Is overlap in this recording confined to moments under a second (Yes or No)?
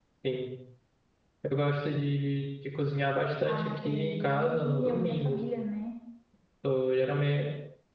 No